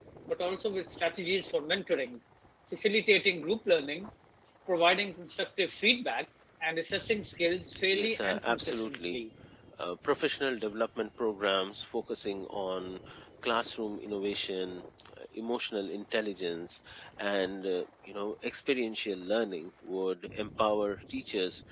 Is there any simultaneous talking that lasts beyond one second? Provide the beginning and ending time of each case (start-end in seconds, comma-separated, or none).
7.9-9.2